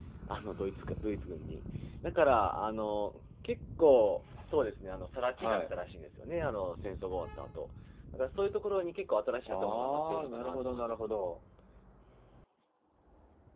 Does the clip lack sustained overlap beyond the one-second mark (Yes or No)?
No